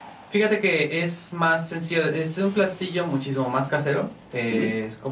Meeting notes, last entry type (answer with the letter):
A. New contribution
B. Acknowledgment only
B